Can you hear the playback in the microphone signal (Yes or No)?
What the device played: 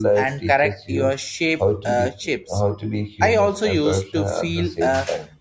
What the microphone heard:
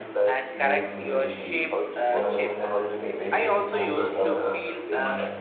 Yes